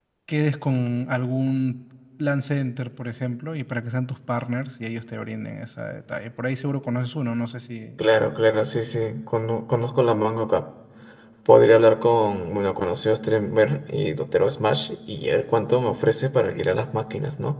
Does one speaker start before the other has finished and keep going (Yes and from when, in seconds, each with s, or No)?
No